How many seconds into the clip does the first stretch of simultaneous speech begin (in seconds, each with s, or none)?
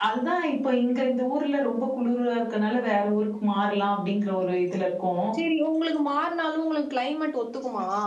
none